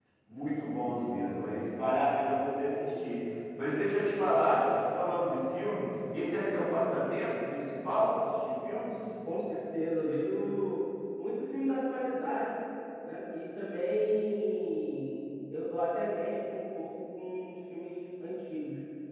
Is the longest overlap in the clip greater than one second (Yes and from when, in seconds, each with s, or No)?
No